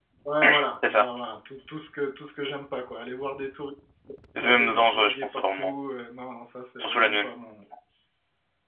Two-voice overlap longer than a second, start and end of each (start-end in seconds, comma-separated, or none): 4.4-5.8